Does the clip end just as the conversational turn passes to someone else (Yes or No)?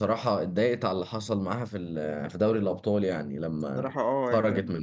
Yes